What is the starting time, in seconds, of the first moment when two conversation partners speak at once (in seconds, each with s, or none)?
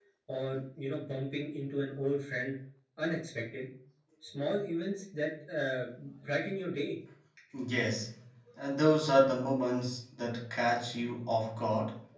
none